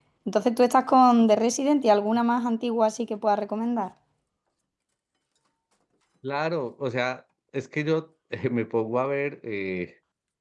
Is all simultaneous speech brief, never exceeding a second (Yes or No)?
Yes